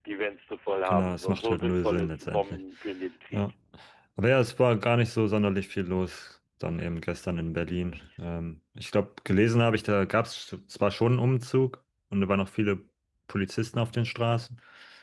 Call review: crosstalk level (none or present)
present